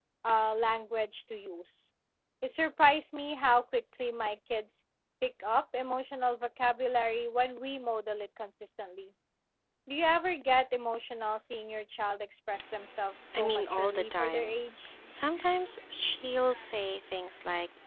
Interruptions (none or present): present